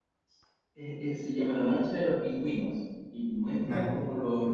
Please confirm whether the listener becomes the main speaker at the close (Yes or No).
No